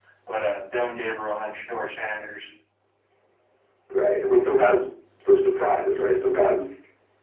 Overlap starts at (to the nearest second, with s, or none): none